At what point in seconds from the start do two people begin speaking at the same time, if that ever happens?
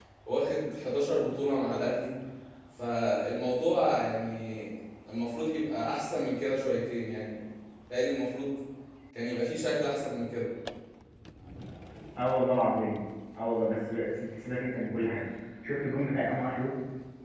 none

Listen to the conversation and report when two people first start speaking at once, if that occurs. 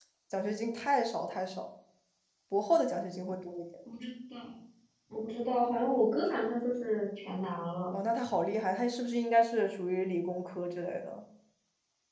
none

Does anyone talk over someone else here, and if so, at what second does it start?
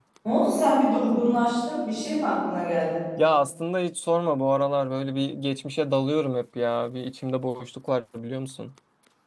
none

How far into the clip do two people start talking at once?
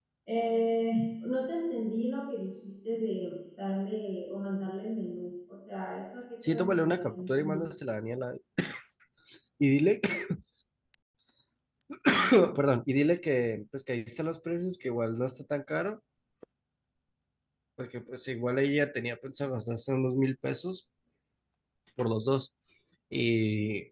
6.4 s

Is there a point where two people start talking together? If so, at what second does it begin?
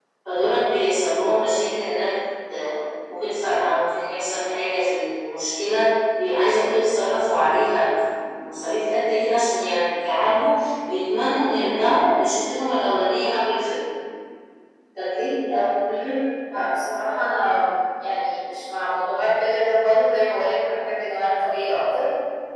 none

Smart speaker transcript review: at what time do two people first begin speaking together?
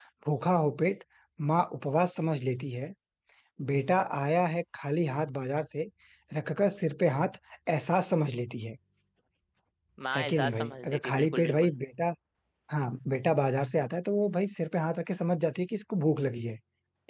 10.2 s

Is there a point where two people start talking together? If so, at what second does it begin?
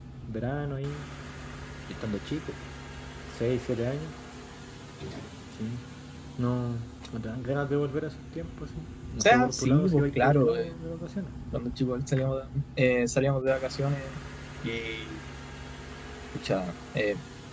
9.2 s

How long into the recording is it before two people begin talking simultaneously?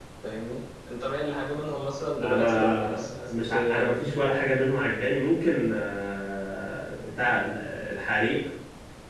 2.2 s

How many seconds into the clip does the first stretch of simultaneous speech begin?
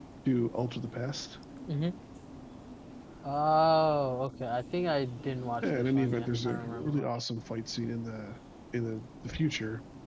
5.6 s

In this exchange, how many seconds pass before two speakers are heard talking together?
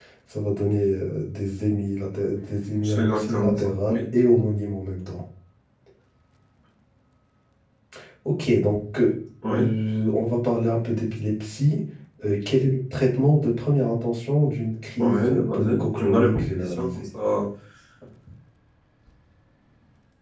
2.8 s

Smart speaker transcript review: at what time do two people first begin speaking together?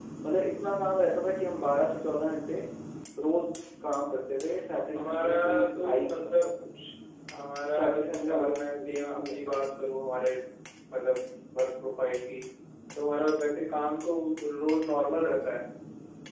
5.0 s

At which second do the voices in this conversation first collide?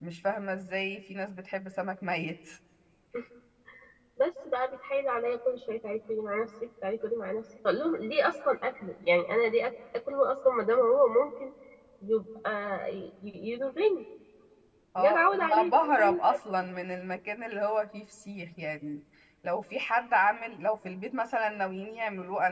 15.0 s

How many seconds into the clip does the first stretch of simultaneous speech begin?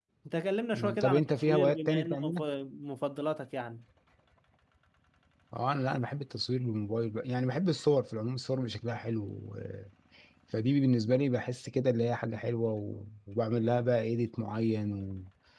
0.7 s

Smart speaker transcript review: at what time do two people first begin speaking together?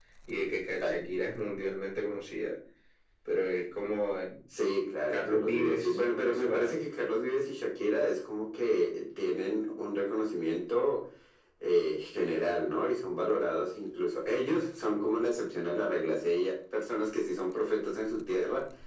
5.1 s

